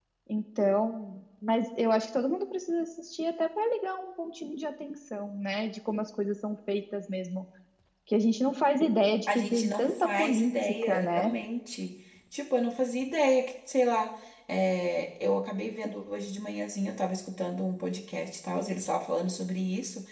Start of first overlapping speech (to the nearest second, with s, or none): 9 s